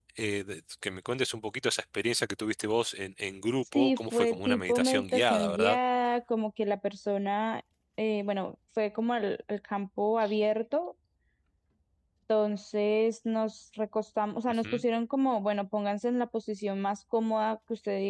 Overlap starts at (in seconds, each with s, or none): 3.7 s